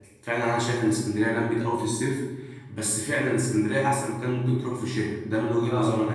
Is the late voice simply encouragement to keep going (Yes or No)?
No